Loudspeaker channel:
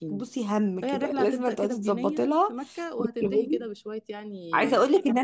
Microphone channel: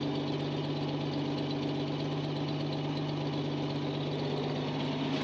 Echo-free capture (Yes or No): Yes